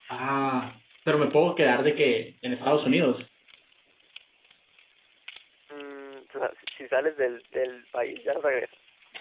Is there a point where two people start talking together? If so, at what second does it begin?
none

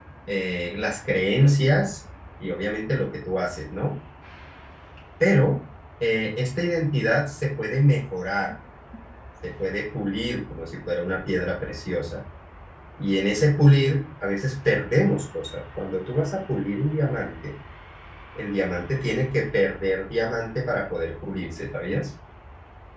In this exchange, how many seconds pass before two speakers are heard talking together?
none

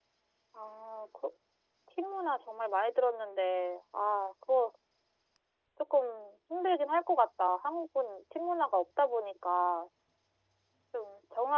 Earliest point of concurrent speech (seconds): none

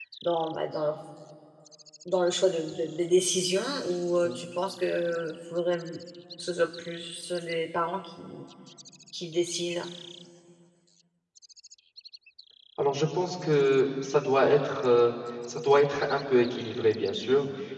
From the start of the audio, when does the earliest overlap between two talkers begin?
none

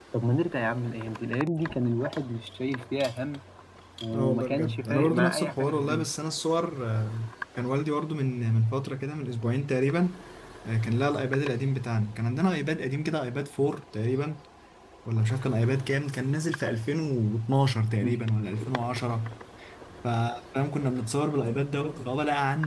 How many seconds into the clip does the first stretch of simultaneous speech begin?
4.1 s

